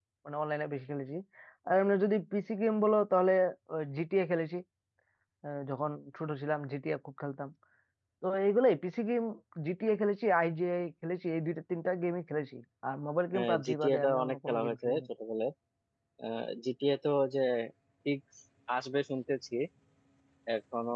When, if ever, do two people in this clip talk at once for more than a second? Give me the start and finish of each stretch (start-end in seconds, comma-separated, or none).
13.3-15.0